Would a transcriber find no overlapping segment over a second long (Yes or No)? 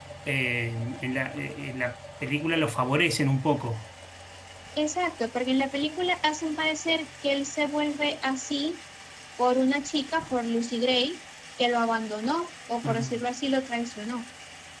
Yes